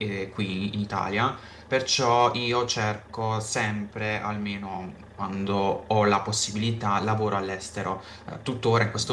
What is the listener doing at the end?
listening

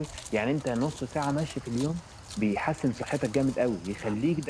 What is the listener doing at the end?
listening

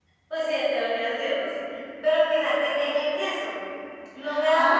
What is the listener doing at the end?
listening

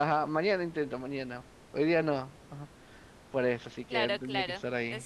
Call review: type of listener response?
taking over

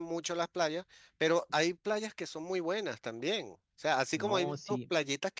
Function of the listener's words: listening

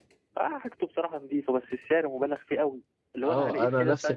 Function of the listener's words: taking over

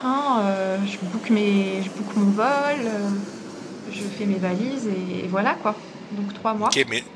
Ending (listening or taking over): taking over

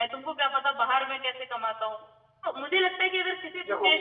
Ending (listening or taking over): listening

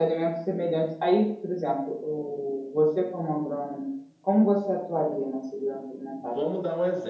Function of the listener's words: taking over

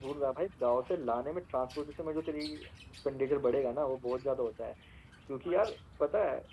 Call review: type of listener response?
listening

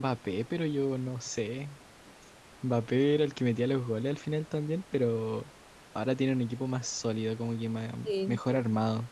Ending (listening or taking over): listening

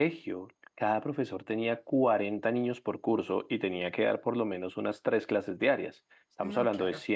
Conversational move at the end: listening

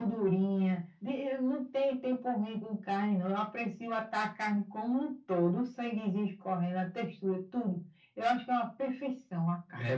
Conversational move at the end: taking over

